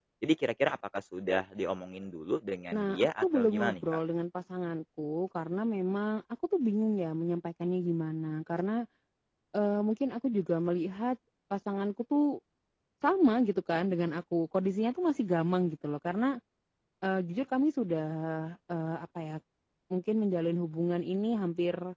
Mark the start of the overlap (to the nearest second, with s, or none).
3 s